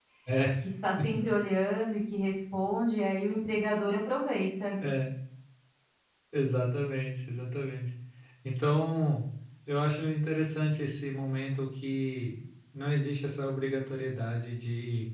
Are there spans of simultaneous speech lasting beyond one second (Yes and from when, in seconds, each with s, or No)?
No